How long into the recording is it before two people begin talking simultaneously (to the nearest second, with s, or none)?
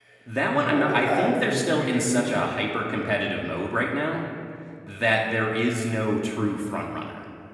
1 s